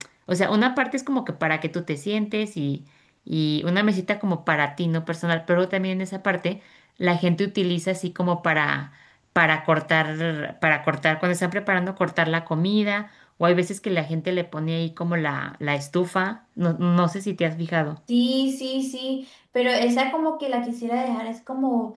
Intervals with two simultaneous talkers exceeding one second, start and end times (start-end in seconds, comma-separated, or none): none